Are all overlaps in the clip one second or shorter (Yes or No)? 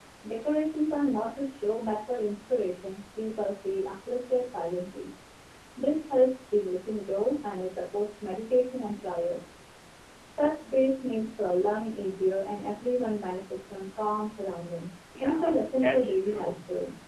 No